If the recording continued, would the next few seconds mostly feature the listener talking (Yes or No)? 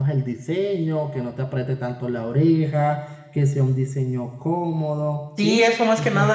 Yes